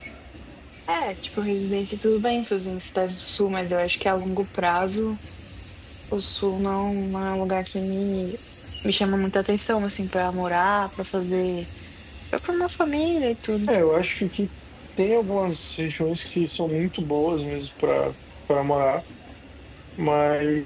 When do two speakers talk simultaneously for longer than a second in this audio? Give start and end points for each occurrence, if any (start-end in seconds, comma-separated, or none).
none